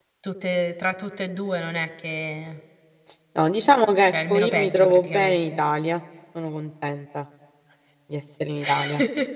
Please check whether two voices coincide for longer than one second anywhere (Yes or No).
Yes